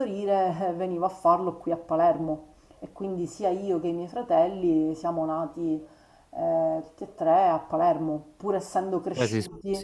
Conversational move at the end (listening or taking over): taking over